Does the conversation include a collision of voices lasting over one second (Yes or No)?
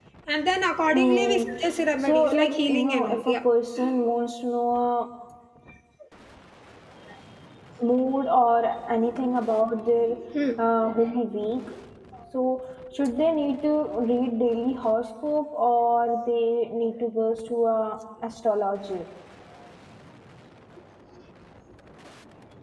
Yes